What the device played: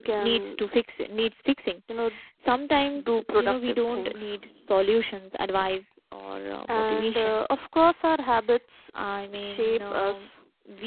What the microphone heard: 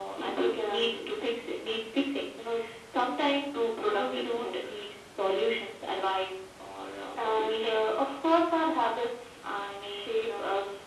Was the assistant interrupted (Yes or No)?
No